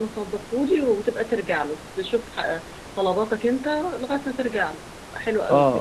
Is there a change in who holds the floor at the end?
Yes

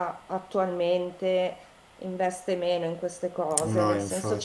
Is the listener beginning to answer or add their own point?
No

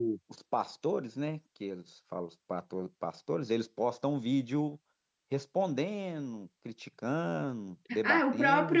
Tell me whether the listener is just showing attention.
No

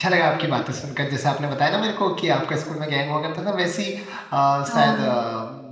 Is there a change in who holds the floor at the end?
No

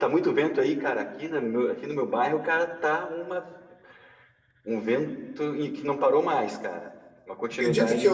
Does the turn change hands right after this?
Yes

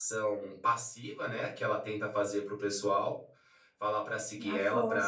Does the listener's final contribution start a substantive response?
No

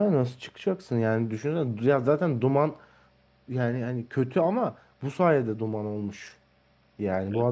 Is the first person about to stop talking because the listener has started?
No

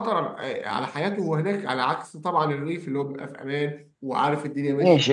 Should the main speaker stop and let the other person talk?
Yes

